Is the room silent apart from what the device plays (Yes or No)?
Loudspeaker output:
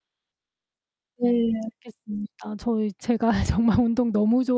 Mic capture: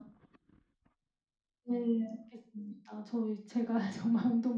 Yes